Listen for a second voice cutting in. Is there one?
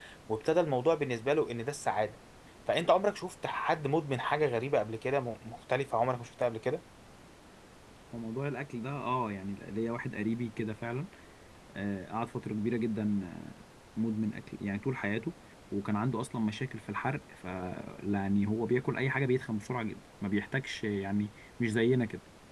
No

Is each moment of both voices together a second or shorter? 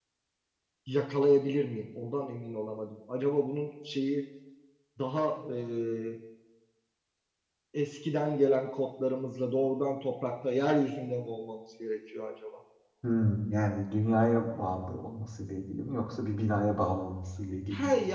Yes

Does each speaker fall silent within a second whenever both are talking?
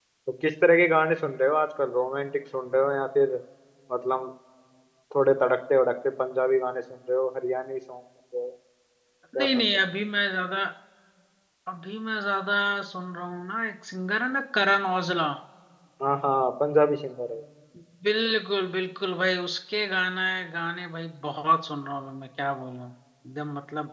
Yes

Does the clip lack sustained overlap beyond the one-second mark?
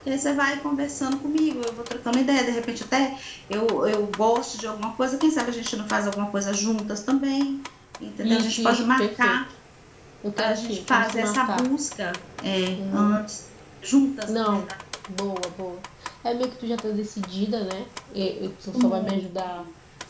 No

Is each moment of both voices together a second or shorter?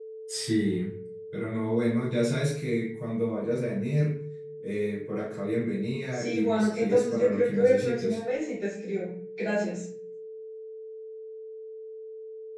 No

